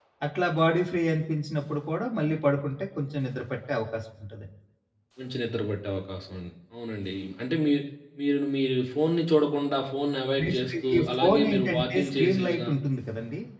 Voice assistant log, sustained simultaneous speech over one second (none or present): present